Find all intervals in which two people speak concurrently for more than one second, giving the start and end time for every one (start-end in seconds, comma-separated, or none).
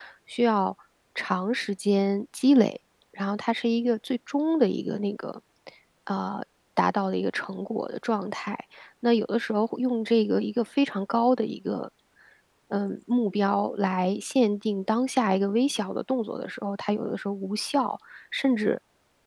none